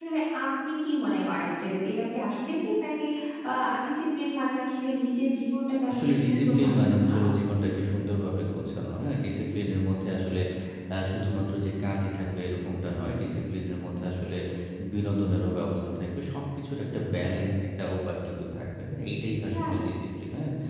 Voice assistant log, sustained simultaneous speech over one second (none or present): present